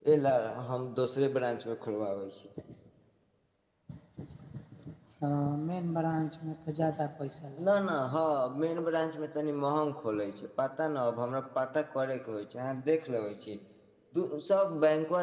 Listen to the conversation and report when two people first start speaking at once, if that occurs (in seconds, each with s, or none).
none